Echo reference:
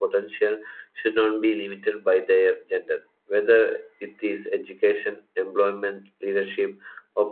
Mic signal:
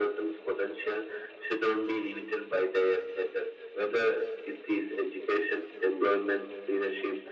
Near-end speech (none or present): none